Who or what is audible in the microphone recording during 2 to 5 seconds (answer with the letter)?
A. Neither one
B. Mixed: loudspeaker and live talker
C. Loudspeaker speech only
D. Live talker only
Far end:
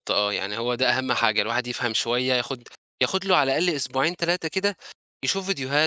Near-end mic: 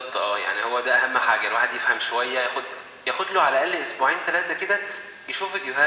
C